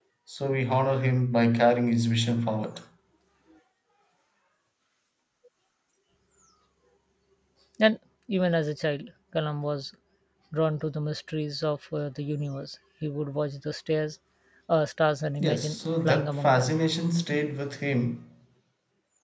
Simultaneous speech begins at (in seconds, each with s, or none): 15.4 s